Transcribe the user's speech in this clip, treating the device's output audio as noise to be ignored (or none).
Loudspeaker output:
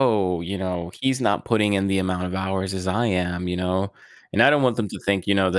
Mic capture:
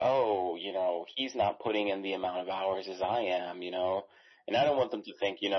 none